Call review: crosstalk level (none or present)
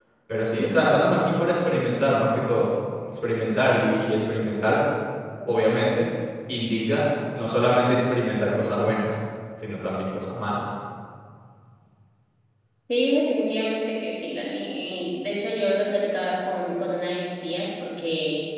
none